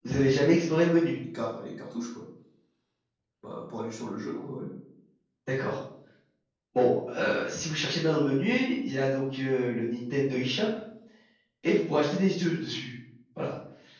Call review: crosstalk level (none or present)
none